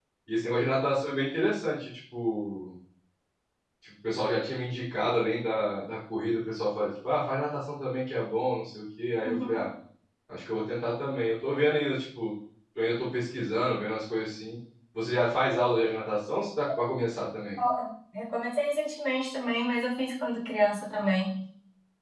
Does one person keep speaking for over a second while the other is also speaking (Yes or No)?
No